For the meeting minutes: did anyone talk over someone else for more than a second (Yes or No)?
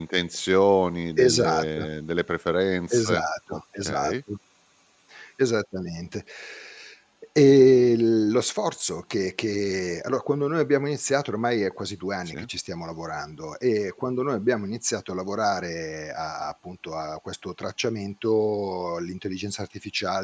Yes